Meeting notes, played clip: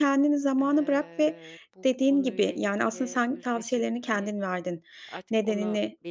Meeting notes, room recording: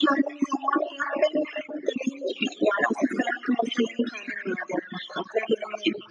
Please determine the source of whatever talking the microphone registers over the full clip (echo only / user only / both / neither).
echo only